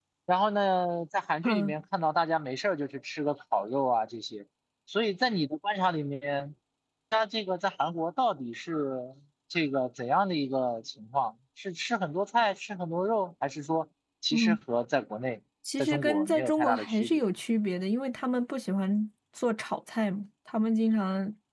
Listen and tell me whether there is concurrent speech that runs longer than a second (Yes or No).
Yes